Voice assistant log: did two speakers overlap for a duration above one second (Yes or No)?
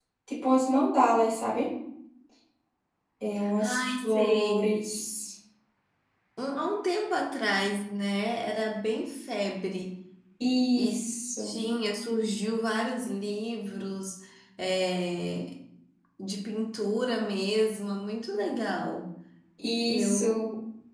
Yes